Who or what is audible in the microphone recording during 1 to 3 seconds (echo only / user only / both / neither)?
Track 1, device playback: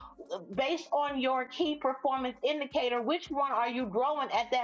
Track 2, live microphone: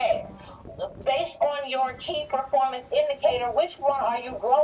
echo only